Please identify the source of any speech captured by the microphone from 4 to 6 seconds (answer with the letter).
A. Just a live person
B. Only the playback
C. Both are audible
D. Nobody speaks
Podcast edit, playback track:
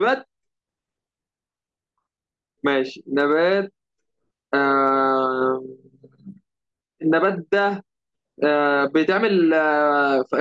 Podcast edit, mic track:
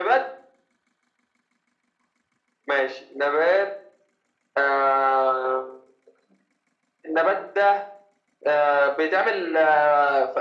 B